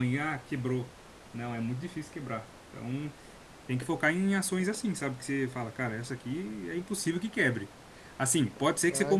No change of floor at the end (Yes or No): Yes